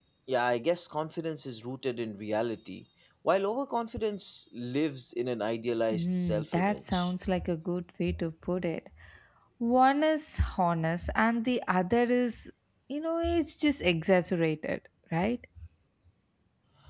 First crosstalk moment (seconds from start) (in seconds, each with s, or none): 5.9 s